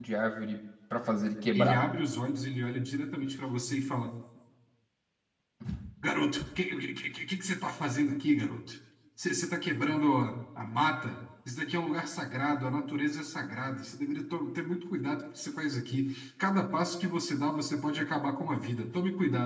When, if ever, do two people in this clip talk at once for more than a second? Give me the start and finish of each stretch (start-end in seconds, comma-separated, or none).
none